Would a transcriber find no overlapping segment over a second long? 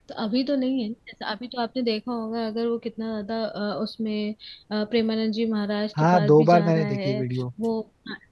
No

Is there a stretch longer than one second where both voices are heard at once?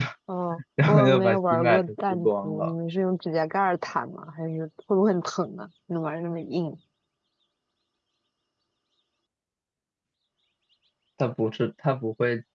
Yes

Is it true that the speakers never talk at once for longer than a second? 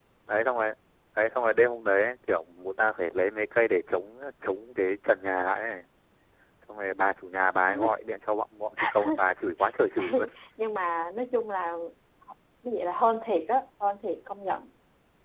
Yes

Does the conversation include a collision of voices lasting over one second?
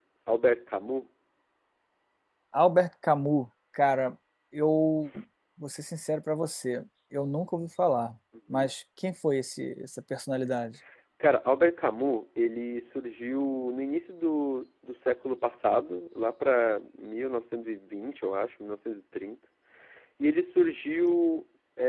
No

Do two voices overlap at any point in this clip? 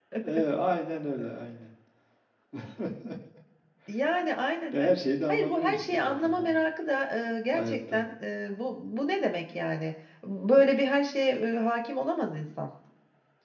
Yes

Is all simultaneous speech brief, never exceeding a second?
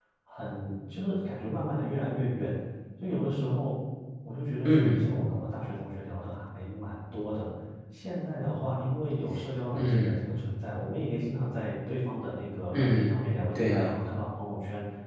Yes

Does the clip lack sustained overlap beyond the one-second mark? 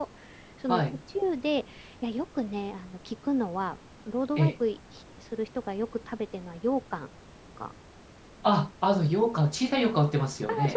Yes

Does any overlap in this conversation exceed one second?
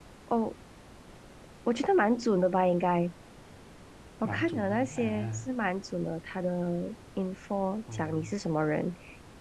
Yes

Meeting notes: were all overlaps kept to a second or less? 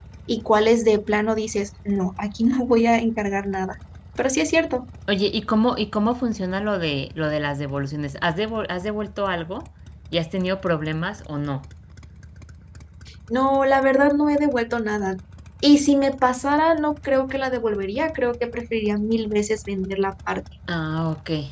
Yes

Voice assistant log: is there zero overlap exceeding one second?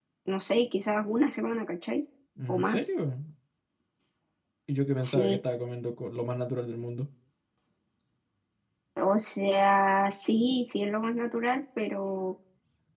Yes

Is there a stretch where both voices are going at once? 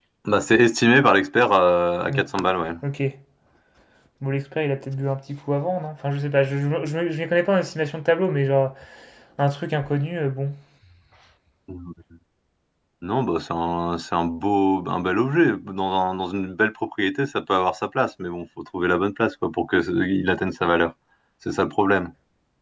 No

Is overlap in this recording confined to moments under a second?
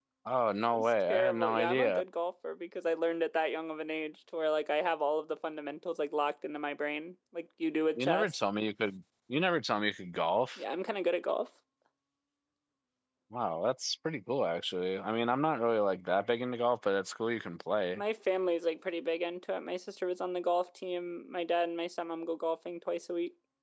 No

